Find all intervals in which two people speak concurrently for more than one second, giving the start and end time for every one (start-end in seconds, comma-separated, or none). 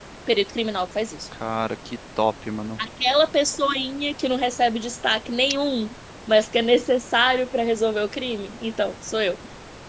none